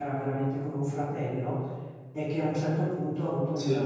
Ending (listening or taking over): listening